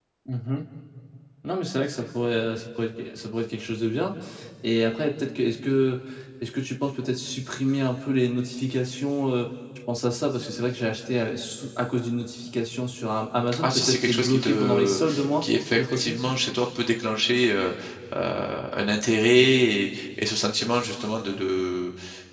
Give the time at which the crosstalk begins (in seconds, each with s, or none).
13.5 s